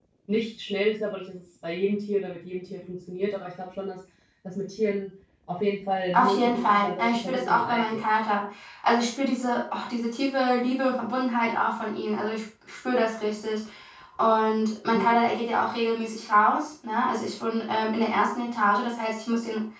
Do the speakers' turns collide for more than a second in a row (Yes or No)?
Yes